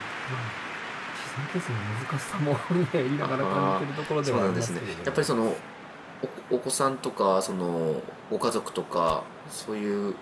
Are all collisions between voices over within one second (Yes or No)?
No